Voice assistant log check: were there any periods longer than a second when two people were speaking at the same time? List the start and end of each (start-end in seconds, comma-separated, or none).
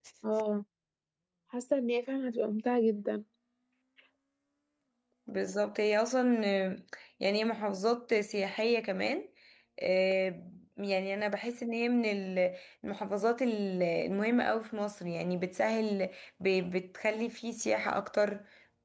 none